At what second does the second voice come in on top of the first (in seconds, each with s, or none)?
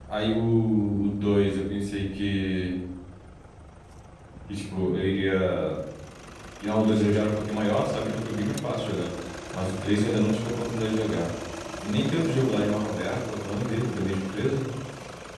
none